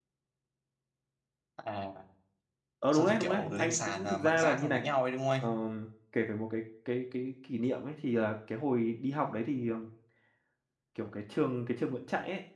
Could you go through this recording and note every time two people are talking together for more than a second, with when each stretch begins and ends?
2.9-4.8

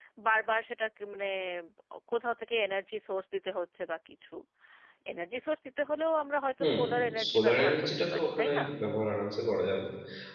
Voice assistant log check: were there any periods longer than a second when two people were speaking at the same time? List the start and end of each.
7.3-8.6

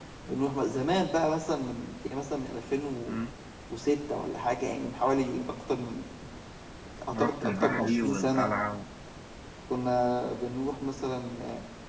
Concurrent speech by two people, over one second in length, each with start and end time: 7.1-8.5

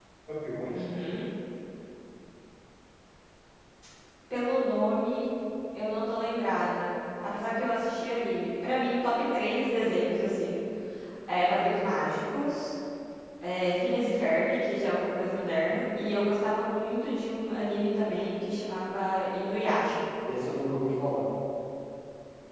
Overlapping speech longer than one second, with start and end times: none

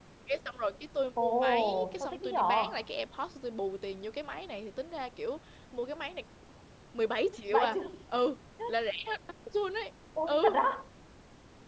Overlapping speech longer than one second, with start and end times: 1.2-2.6

